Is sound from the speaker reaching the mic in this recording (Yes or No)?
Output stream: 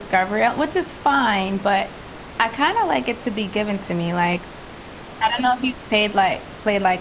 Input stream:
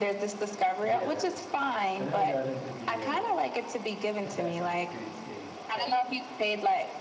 Yes